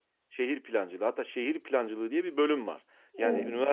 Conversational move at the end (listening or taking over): listening